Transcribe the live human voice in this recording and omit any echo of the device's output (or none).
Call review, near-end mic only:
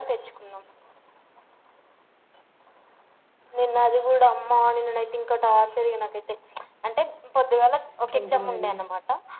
ఇంకేంటి మరి